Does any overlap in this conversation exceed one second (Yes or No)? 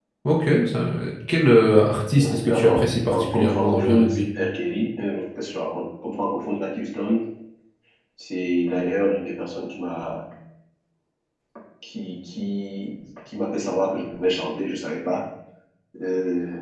Yes